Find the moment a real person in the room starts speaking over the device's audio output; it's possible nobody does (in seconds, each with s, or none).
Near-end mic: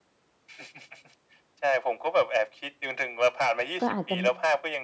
3.8 s